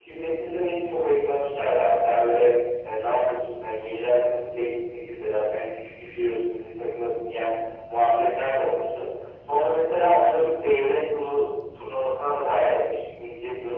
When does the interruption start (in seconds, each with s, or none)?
none